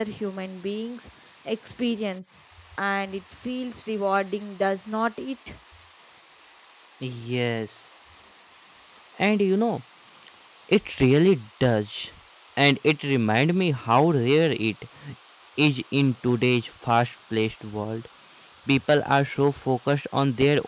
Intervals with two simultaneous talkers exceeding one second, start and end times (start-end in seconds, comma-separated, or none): none